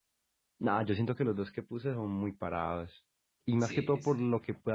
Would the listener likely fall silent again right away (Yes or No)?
Yes